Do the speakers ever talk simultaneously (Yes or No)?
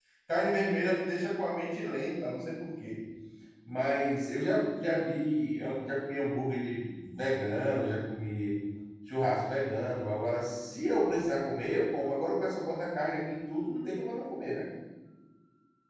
No